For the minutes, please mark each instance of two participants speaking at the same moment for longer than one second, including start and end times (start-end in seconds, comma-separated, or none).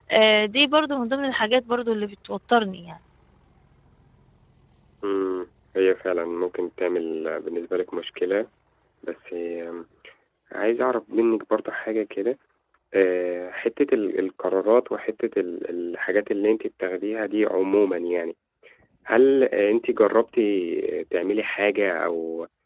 none